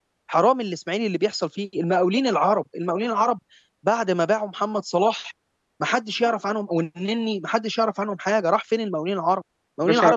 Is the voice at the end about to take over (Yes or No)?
No